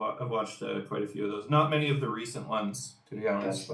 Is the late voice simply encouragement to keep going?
No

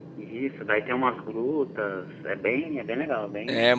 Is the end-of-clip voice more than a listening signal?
Yes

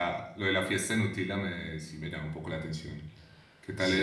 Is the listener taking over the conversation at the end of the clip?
No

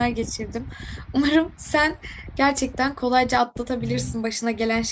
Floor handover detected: No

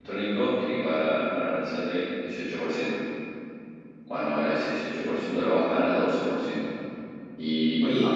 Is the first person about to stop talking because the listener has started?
No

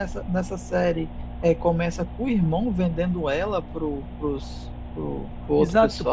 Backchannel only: No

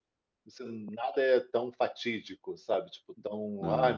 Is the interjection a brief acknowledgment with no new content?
Yes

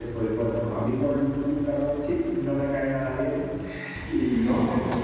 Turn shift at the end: No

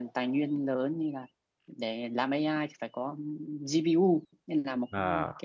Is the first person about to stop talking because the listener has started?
No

